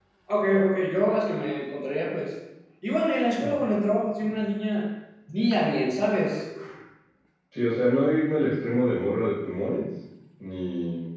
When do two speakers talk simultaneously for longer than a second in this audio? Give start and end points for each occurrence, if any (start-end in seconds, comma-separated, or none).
none